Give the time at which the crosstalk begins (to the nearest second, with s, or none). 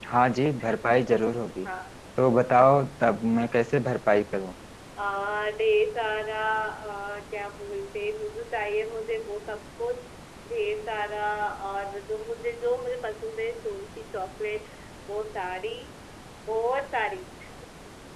none